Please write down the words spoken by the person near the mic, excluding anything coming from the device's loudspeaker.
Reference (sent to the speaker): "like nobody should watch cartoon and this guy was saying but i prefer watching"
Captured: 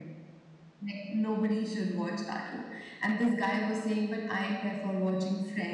none

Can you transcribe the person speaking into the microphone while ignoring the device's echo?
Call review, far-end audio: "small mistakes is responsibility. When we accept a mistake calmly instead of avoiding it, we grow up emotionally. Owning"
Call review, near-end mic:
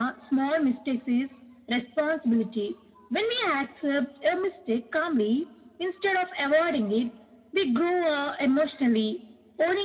none

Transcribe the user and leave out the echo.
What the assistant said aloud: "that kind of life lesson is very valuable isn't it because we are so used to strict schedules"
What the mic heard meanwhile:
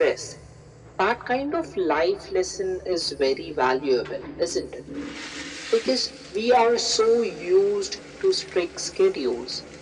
none

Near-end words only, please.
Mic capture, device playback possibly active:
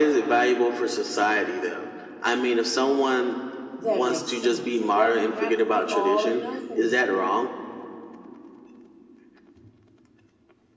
That makes sense. It doesn't have to be all or nothing.

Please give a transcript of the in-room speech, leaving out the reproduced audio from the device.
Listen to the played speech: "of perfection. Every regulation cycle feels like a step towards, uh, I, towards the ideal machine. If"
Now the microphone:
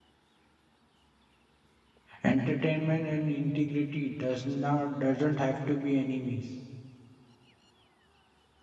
Entertainment and integrity does not doesn't have to be enemies.

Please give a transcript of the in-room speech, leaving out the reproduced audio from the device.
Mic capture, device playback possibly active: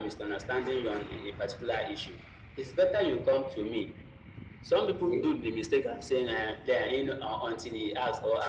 Okay,

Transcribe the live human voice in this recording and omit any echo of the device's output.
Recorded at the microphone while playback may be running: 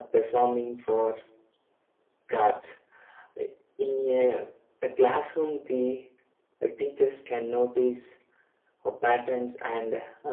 none

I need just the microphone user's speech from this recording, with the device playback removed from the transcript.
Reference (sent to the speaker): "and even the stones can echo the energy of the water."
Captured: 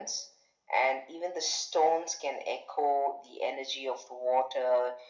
none

